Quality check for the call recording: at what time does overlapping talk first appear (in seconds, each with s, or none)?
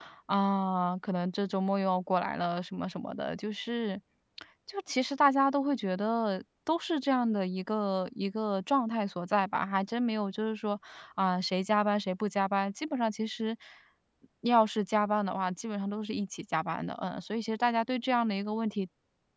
none